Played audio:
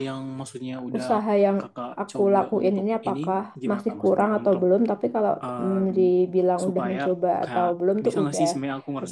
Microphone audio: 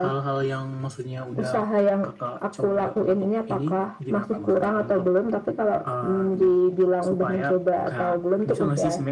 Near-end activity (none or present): none